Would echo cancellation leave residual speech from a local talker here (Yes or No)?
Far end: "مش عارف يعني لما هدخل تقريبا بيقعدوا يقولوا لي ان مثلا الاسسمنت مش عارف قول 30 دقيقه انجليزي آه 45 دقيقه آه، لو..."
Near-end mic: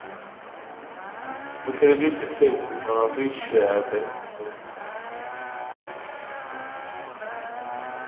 Yes